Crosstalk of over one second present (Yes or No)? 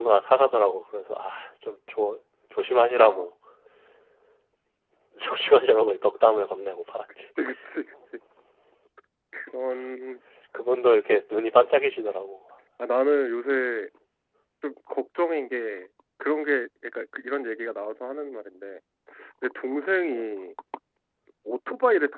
No